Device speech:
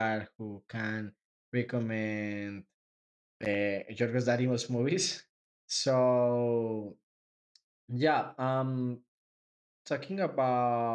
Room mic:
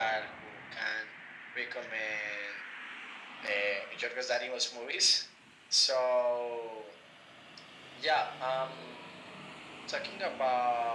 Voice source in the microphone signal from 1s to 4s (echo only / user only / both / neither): echo only